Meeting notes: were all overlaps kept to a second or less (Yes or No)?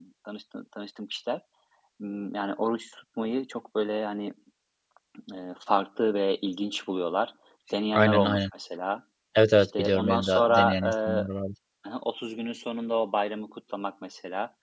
No